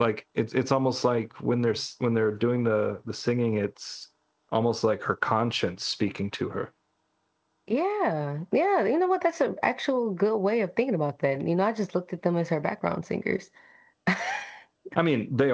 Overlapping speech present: No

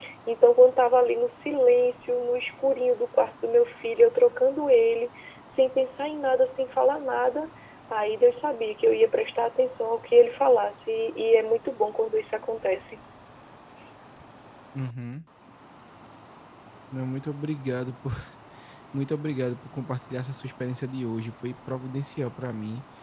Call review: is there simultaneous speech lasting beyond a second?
No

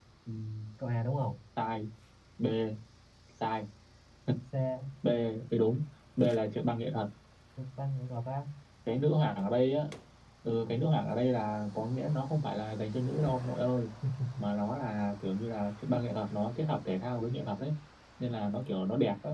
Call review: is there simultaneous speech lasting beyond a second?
No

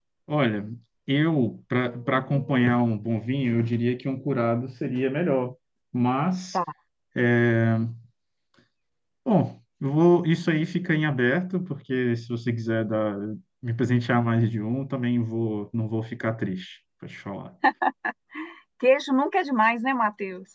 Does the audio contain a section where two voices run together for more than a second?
No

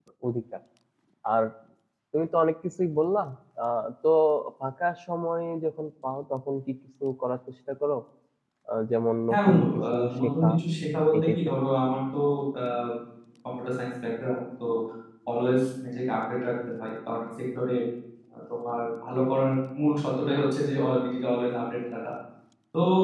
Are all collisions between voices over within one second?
No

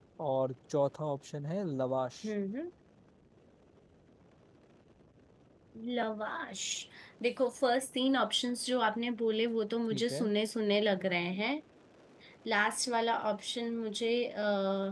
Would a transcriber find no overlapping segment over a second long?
Yes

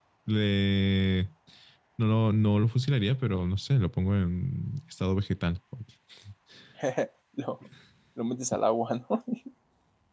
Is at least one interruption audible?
No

